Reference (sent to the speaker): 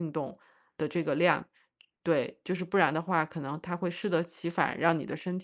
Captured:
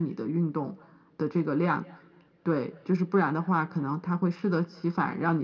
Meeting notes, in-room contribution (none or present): none